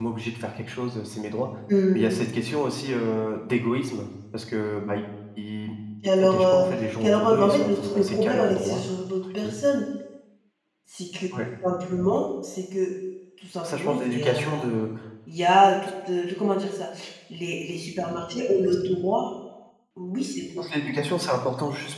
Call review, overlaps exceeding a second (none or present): present